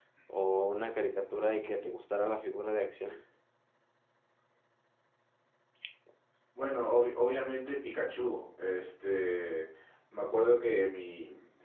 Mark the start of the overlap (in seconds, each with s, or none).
none